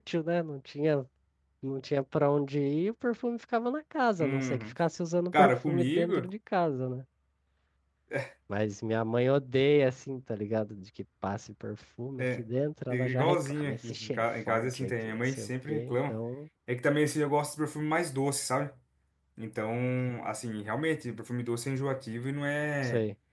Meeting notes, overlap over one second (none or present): present